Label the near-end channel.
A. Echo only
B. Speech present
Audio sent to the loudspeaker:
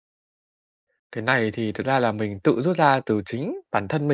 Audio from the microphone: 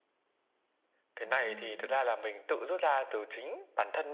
B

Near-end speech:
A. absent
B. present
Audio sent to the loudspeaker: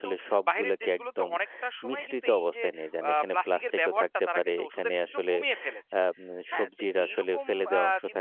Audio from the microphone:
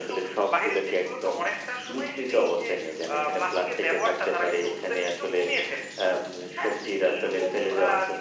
A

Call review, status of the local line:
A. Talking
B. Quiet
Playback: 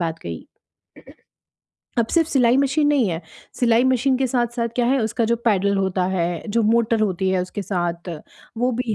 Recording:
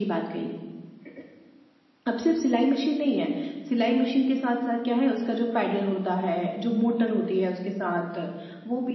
B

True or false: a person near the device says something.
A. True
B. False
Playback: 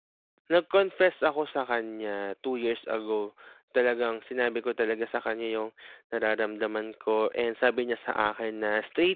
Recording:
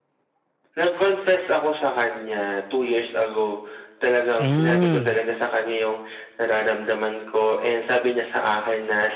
A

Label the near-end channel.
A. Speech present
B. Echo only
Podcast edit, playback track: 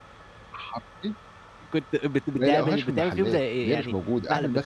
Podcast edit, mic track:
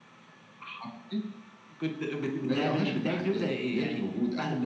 B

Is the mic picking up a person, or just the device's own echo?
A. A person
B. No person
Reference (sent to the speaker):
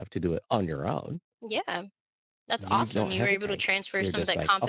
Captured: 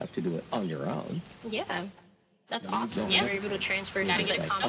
A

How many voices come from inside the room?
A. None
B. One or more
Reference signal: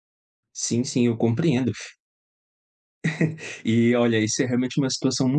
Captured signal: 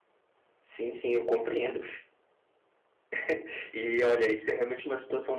A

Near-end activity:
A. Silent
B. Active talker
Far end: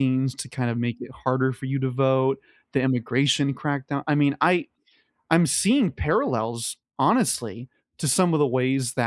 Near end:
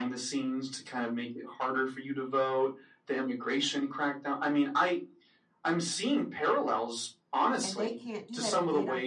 B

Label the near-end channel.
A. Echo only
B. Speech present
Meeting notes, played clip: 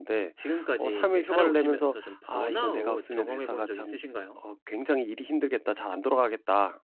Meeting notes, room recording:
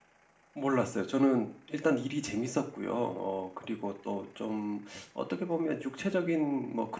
B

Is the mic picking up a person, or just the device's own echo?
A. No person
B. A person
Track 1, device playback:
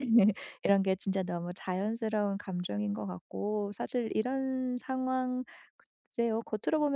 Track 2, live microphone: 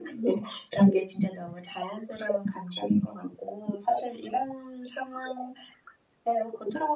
A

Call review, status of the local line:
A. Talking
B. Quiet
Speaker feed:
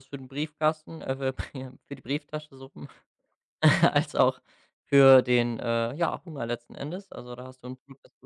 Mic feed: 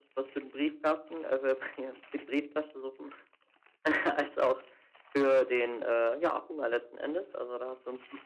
B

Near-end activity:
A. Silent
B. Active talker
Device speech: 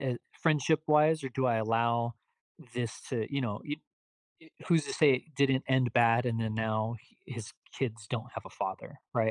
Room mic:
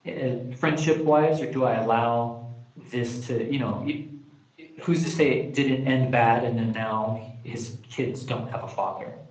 A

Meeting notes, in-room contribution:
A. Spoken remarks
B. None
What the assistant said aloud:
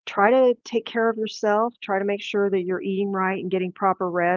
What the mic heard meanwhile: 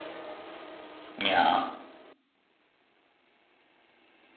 A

